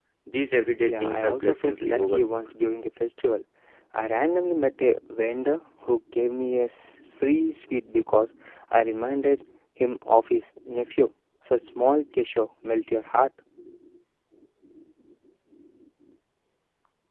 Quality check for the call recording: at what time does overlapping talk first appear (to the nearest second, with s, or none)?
1 s